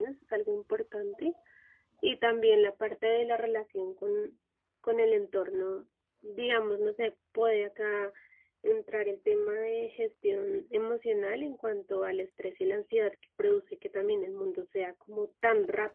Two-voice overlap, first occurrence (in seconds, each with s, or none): none